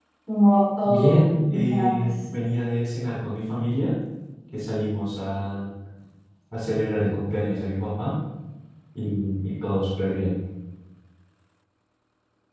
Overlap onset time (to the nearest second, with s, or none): 1 s